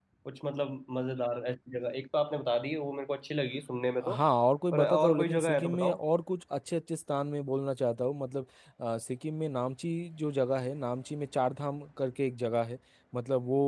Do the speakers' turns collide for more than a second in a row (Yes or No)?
Yes